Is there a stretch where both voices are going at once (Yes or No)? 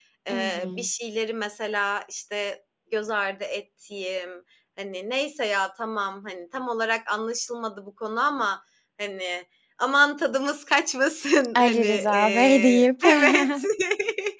Yes